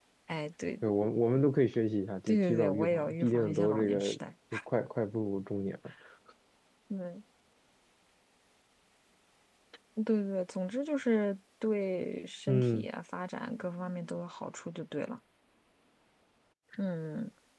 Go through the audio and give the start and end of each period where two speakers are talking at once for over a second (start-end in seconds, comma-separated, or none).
2.3-4.1